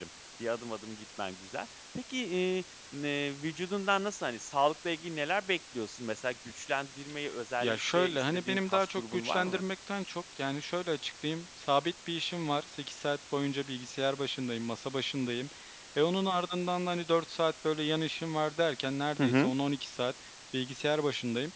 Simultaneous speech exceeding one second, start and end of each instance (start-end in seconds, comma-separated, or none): 7.6-9.6